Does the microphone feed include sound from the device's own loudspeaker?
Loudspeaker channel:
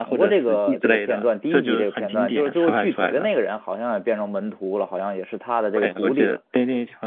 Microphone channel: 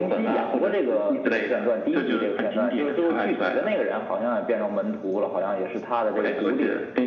Yes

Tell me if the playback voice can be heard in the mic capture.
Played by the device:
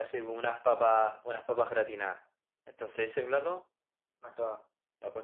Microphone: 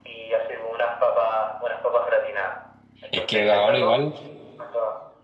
Yes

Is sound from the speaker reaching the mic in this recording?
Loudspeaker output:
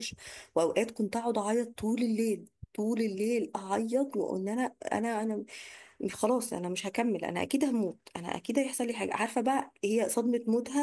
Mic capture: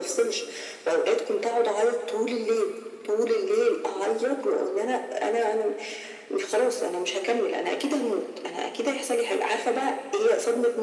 Yes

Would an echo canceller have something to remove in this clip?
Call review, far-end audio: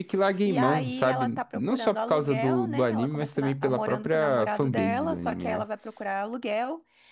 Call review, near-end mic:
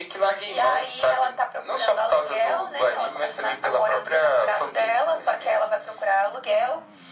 Yes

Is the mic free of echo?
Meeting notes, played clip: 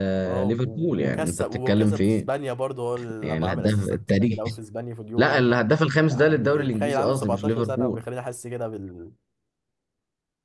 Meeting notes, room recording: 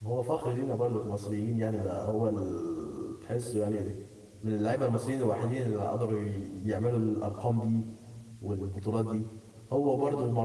Yes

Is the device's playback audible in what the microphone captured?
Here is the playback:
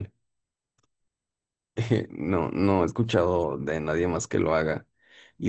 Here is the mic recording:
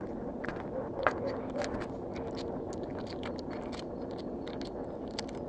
No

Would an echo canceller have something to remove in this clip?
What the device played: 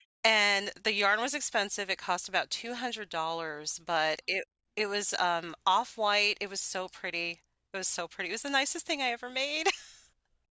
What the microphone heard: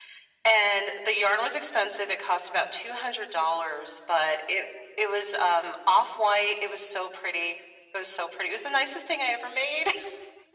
Yes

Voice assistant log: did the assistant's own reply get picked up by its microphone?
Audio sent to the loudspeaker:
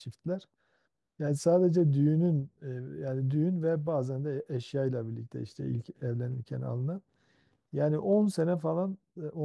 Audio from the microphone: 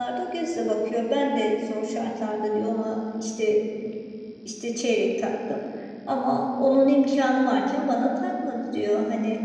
No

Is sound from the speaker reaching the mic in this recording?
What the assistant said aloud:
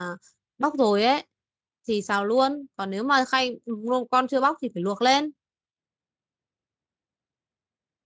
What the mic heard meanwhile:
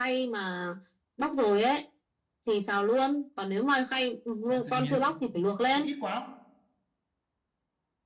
Yes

